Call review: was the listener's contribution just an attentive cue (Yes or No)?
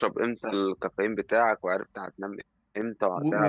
No